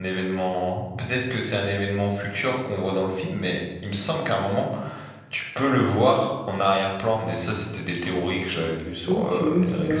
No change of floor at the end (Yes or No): No